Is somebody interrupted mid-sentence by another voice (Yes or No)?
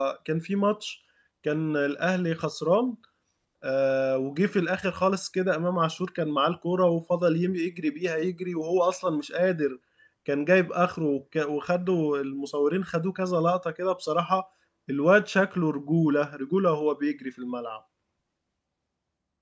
No